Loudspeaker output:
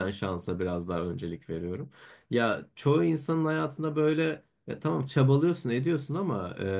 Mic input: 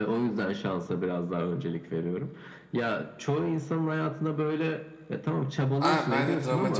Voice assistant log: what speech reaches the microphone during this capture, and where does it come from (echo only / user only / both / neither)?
both